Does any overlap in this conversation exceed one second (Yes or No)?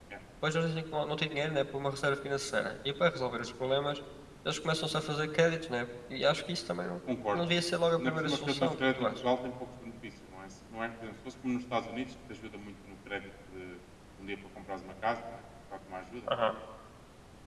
Yes